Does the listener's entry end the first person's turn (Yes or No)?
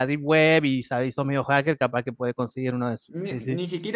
Yes